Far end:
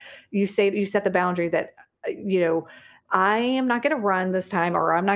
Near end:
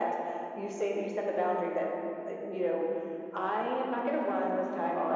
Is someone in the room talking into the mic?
No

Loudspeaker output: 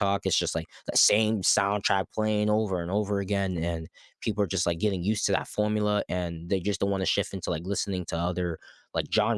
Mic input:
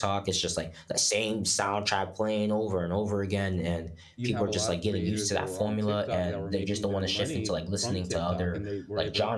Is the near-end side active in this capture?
Yes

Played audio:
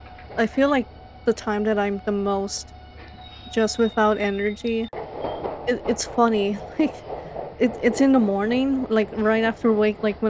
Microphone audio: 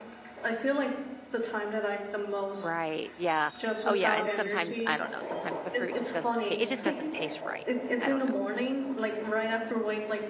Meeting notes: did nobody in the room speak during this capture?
No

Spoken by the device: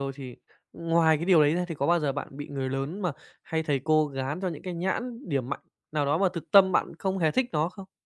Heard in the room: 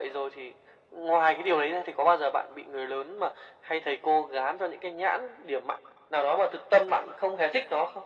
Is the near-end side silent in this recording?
Yes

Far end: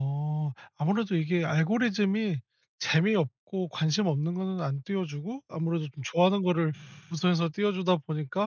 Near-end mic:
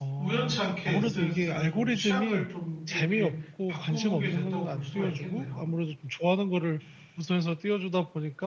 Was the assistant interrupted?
Yes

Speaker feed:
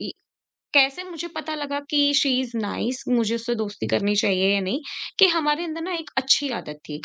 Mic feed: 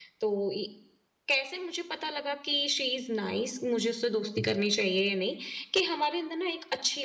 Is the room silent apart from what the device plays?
Yes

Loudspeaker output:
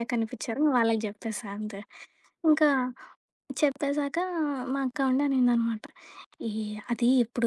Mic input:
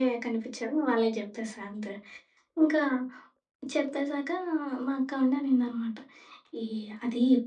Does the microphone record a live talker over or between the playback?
No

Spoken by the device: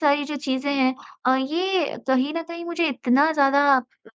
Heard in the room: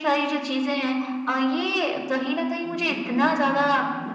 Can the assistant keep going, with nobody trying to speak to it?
No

